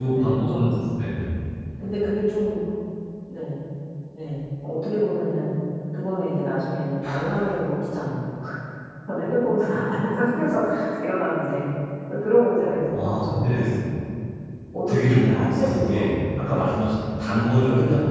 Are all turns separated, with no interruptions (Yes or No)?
No